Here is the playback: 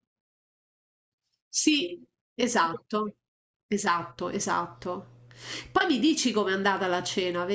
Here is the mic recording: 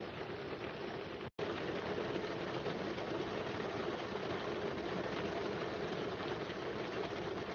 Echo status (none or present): none